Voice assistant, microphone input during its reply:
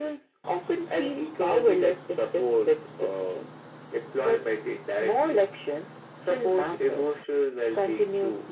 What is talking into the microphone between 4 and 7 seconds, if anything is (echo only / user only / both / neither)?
echo only